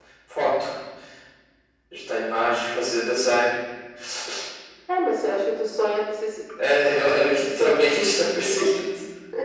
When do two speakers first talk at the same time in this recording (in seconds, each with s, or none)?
7.3 s